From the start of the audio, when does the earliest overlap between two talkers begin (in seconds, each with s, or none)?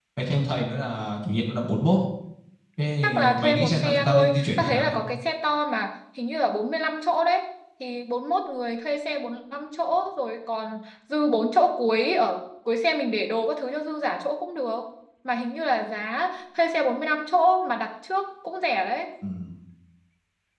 3.0 s